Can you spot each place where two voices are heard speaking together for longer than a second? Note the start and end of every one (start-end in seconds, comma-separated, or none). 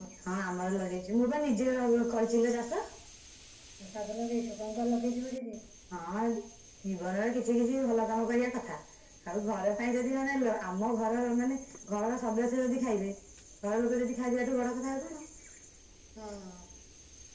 none